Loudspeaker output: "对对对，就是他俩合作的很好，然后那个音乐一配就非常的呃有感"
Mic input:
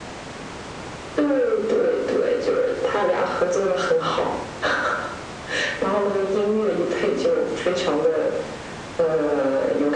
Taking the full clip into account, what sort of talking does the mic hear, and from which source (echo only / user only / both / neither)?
echo only